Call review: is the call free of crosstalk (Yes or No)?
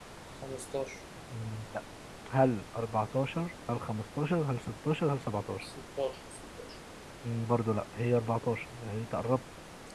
Yes